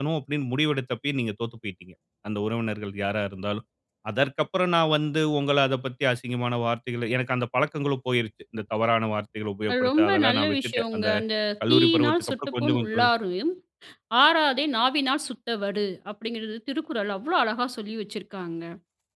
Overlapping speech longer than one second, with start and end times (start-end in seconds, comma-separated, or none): 9.7-11.1, 11.7-13.0